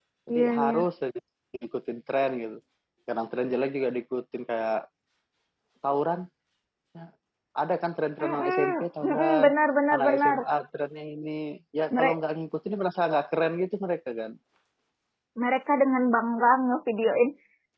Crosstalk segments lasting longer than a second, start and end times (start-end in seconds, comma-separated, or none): 8.2-9.5